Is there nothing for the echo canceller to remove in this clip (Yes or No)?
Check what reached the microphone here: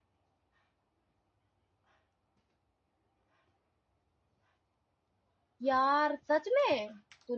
Yes